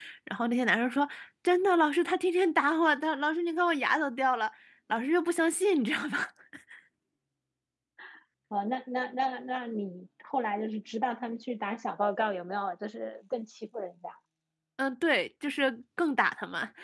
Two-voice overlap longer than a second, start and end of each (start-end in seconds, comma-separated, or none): none